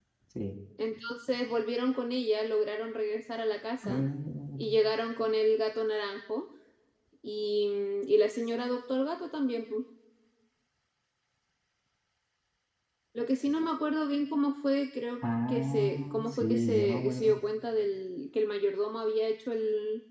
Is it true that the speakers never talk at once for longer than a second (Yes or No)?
No